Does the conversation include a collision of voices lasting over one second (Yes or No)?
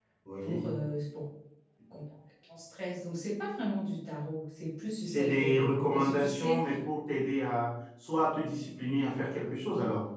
Yes